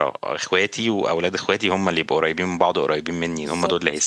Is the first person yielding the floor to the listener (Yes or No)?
Yes